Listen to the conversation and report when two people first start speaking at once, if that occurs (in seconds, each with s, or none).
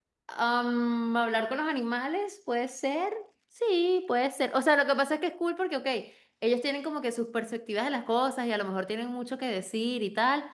none